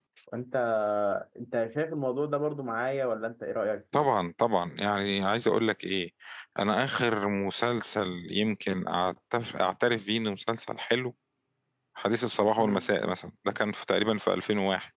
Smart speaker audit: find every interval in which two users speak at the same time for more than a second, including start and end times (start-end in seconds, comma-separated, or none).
none